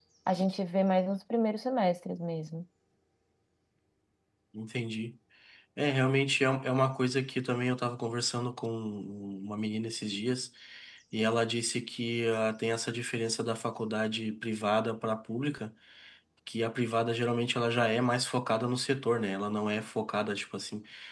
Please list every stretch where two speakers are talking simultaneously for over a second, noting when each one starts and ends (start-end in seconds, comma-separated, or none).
none